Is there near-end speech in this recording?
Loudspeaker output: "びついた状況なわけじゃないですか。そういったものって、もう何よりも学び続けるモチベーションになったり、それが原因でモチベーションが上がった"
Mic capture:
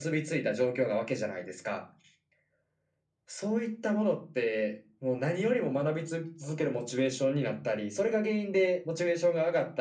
No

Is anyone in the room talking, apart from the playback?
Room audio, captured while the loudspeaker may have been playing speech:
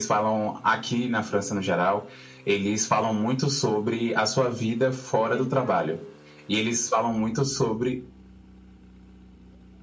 Yes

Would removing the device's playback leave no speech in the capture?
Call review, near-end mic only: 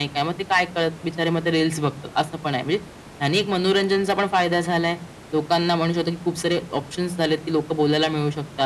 Yes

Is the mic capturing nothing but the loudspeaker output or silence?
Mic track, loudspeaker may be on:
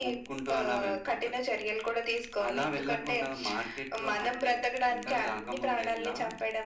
Yes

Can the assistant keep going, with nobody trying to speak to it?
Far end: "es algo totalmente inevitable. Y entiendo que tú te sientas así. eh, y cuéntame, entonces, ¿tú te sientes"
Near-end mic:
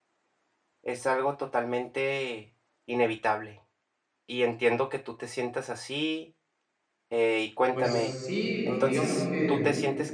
No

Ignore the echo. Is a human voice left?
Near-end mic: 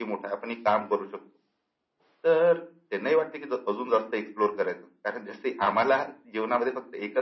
No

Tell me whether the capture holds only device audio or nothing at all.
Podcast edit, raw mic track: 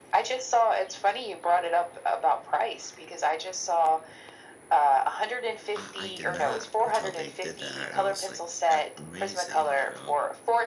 No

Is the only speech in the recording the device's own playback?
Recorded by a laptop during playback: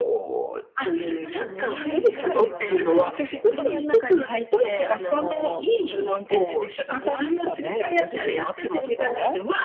No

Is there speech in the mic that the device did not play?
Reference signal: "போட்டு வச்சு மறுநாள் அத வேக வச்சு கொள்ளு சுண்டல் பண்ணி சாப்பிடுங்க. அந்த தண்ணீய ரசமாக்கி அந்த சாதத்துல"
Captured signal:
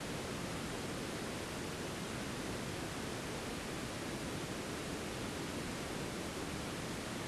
No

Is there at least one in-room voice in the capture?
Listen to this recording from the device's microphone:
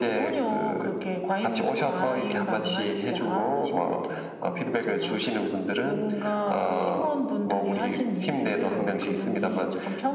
No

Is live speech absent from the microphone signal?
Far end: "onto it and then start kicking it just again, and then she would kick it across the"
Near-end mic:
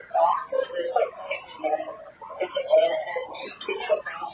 Yes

